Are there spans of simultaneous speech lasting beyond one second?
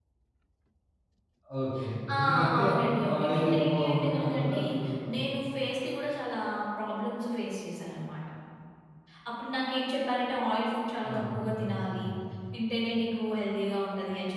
Yes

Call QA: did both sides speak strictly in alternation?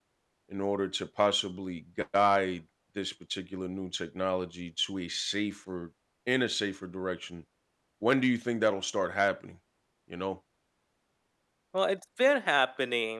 Yes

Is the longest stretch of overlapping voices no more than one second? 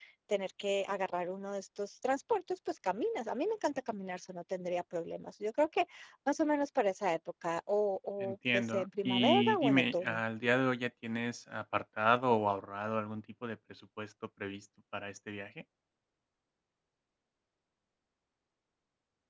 No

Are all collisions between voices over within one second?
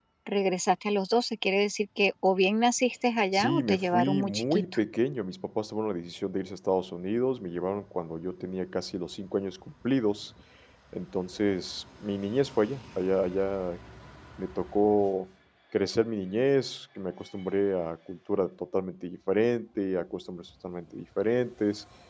No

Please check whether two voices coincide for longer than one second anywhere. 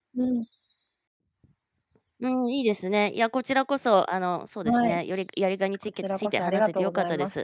Yes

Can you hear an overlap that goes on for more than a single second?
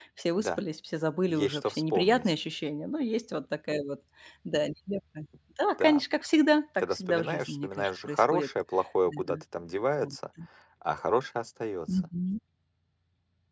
Yes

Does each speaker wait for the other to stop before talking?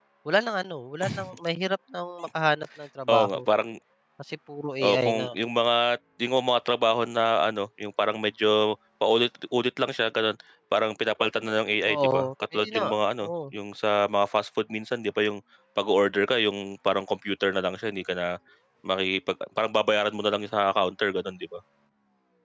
No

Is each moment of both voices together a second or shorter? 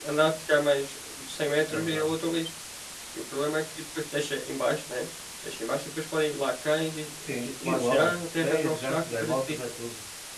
No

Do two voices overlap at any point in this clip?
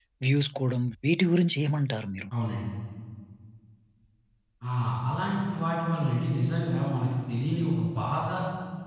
No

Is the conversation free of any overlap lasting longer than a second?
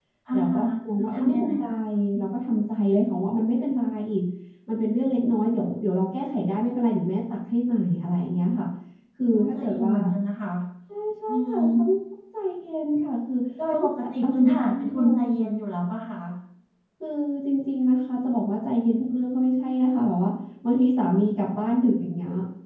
No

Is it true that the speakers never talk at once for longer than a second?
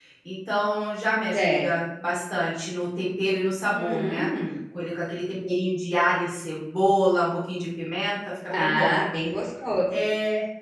Yes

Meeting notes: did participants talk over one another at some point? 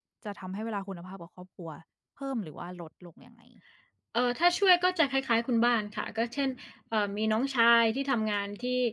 No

